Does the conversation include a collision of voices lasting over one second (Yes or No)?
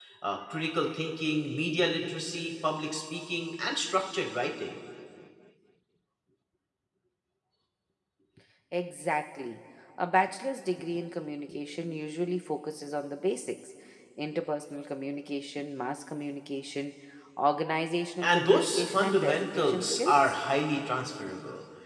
Yes